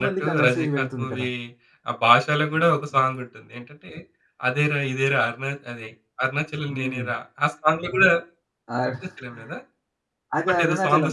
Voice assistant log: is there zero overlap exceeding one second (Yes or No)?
No